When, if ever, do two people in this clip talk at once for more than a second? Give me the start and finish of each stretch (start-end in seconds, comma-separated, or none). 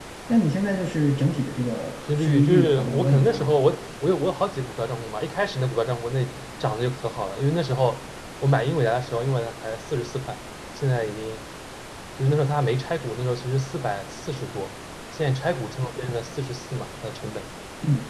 2.2-3.5